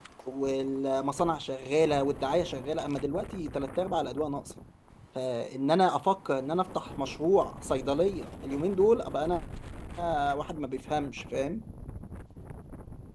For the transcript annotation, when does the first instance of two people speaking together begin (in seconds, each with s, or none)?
none